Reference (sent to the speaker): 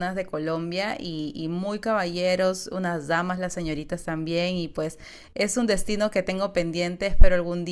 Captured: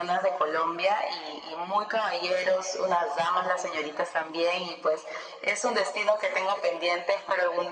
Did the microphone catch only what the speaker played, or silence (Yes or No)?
Yes